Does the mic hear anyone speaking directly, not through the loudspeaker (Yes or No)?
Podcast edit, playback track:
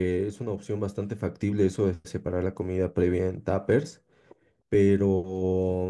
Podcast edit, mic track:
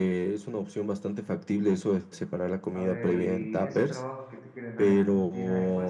Yes